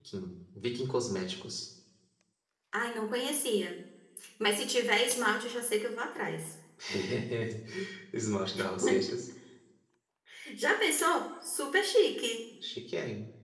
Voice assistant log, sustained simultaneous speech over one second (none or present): none